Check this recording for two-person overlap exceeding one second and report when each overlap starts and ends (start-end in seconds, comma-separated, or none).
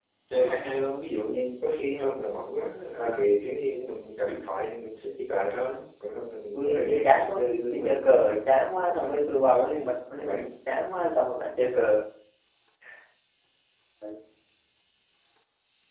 6.5-8.1